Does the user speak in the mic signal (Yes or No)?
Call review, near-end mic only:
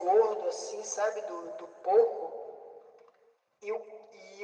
No